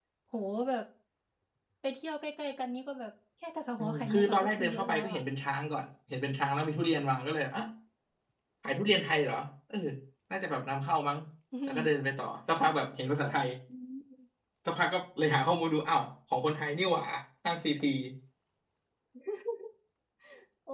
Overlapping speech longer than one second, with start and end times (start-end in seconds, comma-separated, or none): 3.8-5.2